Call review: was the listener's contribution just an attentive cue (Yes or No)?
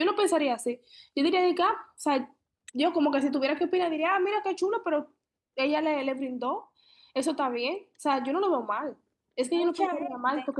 No